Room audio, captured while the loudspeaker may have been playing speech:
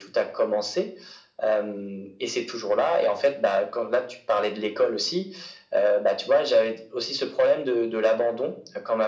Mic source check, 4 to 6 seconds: echo only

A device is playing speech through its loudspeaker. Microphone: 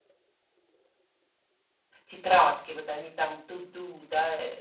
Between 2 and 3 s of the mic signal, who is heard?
user only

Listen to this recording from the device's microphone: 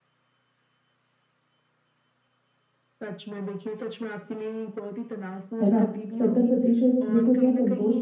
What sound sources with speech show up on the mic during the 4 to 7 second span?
both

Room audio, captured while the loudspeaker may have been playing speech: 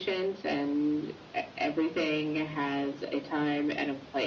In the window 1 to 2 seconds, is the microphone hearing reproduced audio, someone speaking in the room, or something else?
echo only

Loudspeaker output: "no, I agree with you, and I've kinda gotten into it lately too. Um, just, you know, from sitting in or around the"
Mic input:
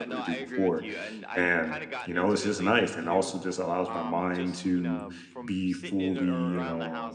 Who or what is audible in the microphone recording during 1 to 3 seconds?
both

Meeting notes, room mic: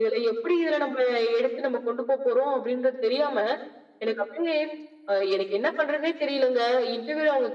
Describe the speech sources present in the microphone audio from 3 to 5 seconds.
echo only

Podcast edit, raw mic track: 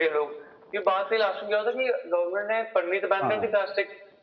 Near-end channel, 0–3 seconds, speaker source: echo only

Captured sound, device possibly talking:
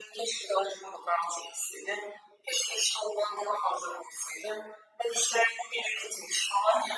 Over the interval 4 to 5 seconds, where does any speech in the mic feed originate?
echo only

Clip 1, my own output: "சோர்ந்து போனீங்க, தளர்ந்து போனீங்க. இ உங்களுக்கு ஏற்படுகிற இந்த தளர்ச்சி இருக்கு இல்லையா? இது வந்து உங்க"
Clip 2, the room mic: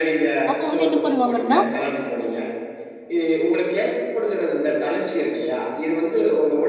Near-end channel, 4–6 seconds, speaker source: echo only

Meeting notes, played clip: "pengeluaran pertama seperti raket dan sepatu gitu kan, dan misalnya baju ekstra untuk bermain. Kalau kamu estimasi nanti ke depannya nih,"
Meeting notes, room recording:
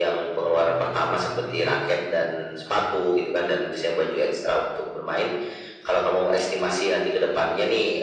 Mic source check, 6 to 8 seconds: echo only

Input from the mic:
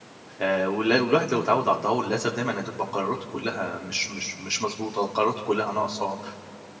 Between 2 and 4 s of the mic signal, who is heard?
user only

